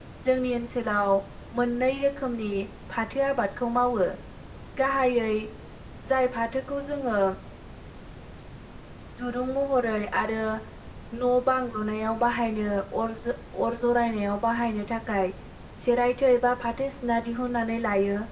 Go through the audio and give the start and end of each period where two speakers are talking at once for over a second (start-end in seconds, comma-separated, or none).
none